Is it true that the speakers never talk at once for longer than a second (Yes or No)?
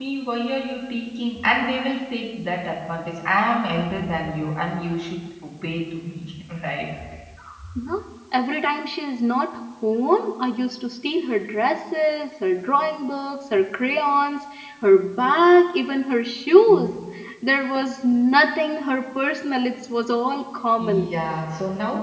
Yes